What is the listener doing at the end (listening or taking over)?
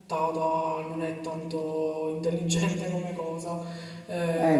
listening